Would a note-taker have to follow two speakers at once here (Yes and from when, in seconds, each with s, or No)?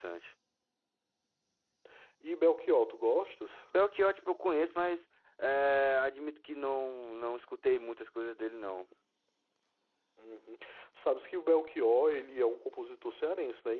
No